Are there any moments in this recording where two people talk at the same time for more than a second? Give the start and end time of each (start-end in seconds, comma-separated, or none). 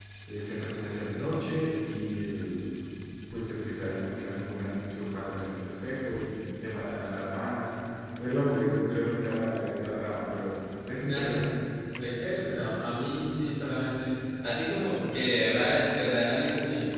none